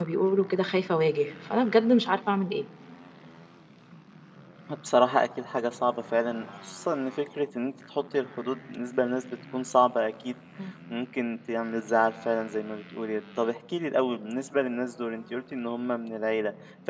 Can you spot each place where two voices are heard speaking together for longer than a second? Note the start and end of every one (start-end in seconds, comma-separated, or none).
none